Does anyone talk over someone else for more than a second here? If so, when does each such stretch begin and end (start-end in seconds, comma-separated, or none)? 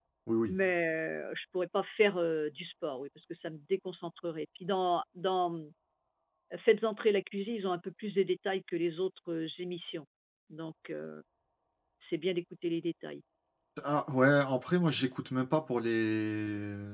none